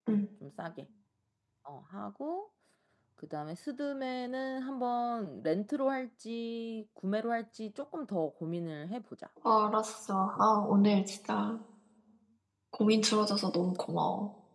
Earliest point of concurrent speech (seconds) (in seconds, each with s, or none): none